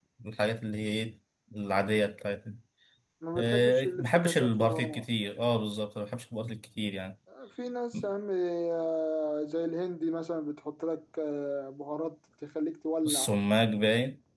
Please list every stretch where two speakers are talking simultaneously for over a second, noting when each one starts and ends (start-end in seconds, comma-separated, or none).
3.4-5.0